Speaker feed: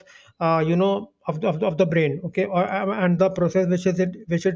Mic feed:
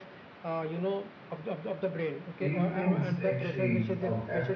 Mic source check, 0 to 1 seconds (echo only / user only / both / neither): echo only